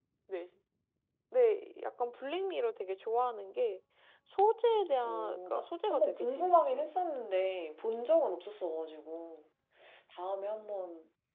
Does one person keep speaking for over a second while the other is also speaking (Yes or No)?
Yes